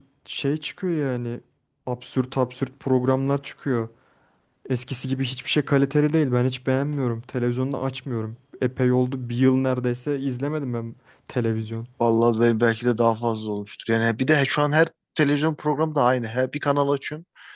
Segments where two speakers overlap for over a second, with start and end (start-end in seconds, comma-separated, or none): none